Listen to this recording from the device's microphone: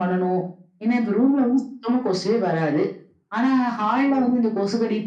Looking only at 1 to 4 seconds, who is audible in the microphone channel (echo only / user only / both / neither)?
echo only